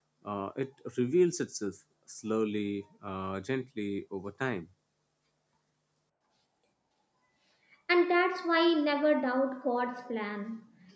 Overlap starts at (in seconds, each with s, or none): none